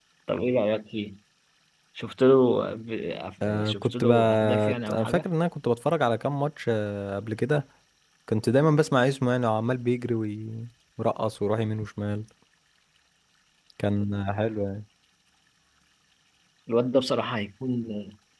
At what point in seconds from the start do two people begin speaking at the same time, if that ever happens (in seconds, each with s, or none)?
3.4 s